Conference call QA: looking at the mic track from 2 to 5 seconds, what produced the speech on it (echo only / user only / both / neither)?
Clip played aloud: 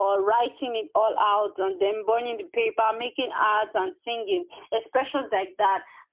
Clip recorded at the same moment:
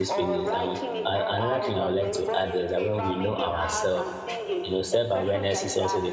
both